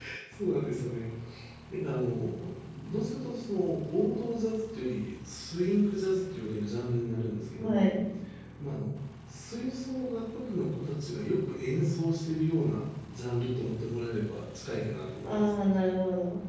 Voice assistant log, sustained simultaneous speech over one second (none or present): none